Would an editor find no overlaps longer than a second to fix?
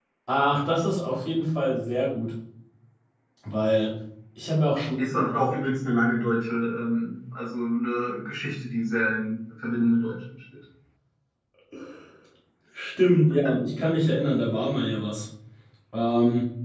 Yes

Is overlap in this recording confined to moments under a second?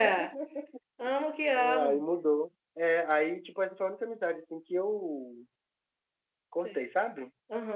Yes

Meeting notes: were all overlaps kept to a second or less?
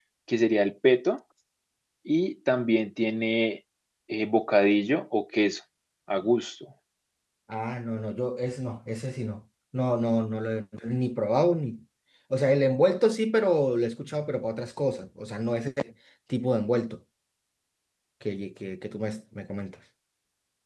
Yes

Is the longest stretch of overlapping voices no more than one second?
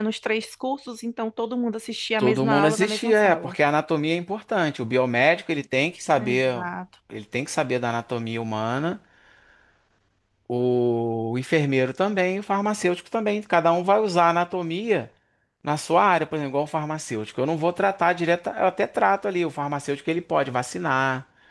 No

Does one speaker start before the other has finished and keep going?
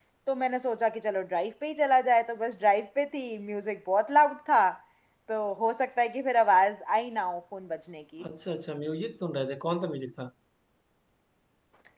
No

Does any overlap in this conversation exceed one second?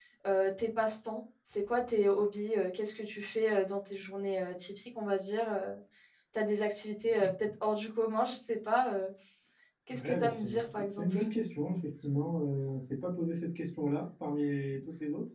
Yes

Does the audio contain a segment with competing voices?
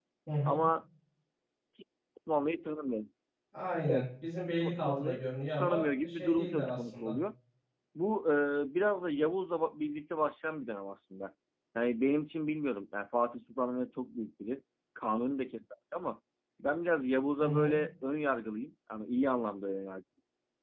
Yes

